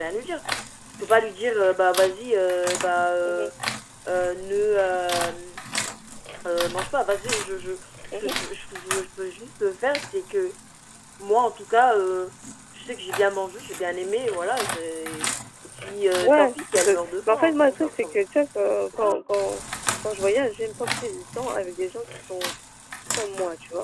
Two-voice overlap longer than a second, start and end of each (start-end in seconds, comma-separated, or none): 16.2-18.2